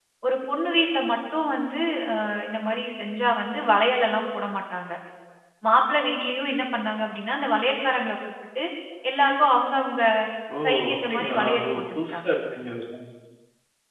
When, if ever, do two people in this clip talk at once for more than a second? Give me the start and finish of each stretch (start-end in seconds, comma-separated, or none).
10.9-12.3